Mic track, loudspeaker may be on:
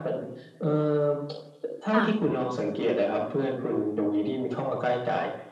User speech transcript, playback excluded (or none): ค่ะ